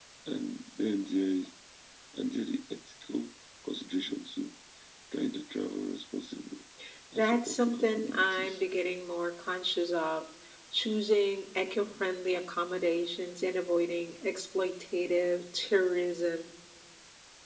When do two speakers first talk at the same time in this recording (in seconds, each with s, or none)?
7.2 s